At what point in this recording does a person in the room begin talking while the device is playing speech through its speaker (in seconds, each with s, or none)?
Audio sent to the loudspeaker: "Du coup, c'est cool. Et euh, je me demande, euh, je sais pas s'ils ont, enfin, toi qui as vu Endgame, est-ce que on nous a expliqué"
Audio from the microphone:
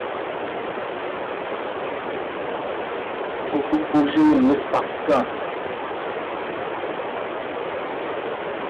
3.5 s